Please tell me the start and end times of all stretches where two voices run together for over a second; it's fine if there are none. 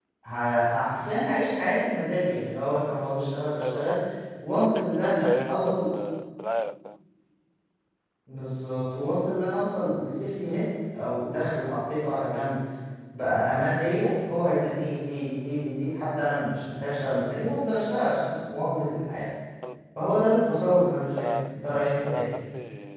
4.5-5.8

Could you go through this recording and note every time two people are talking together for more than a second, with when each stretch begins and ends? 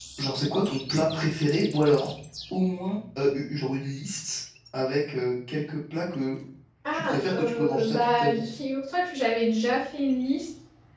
6.9-8.5

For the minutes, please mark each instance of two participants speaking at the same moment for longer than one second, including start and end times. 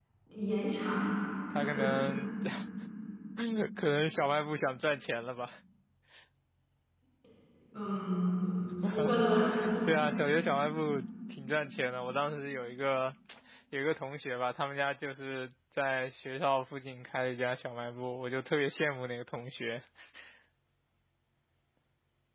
none

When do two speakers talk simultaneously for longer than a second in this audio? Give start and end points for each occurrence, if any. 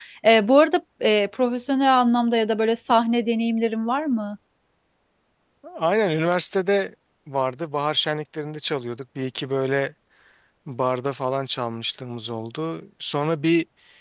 none

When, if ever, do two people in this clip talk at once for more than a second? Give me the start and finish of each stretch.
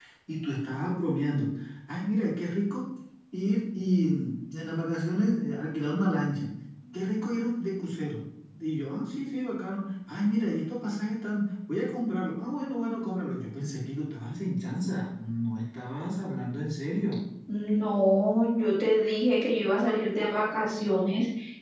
none

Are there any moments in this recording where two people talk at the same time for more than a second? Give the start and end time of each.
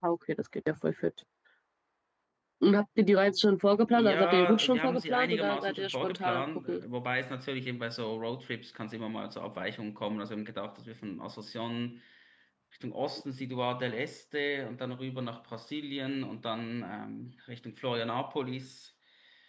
3.9-6.8

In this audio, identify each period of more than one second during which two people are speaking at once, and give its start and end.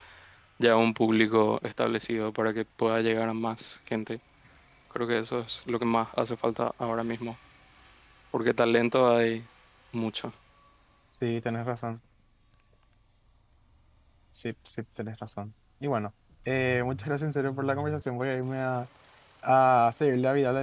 none

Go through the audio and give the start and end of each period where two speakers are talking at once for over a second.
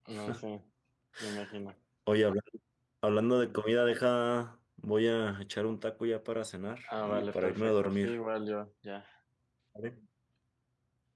6.9-8.2

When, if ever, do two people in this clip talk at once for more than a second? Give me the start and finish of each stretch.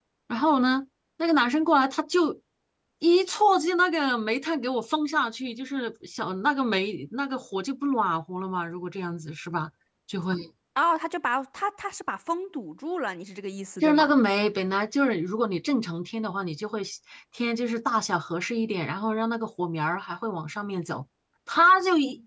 none

